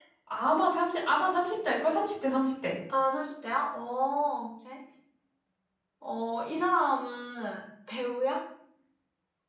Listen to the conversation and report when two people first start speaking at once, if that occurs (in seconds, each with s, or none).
none